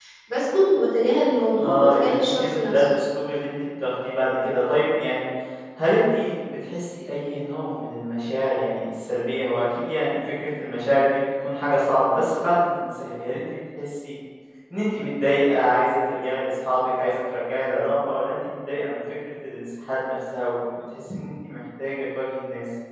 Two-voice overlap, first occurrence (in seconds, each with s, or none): 1.6 s